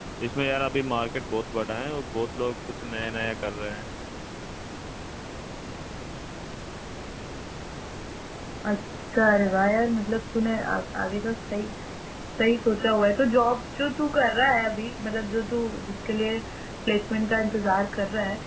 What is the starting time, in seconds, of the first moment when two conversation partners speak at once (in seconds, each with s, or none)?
none